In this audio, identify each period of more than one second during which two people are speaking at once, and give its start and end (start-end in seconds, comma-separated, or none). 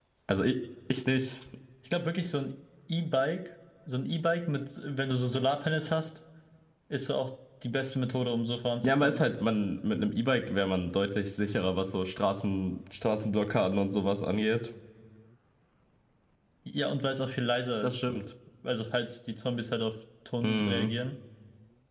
none